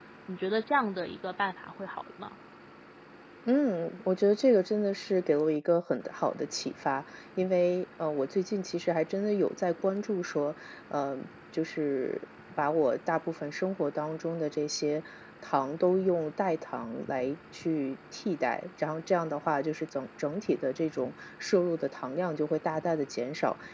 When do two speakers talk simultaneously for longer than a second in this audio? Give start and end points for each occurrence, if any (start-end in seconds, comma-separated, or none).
none